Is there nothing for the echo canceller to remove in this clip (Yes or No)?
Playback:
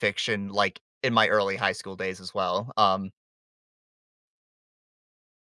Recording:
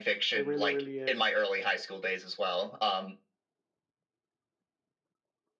No